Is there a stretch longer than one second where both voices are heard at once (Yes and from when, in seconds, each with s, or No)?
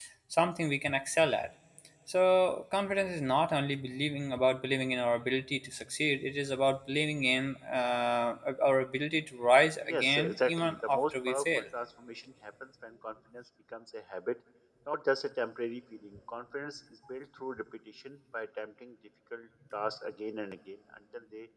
Yes, from 9.9 s